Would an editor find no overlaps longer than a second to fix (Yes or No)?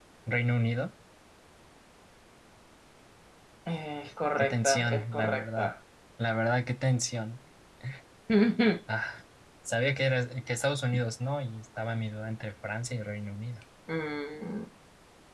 No